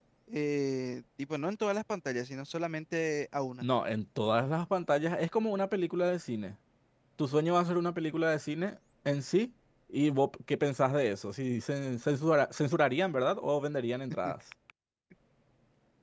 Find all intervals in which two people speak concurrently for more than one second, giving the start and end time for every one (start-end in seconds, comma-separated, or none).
none